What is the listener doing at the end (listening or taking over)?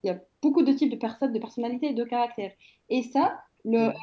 listening